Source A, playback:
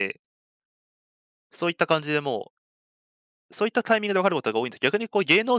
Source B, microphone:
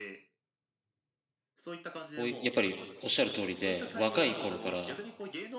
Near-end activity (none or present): present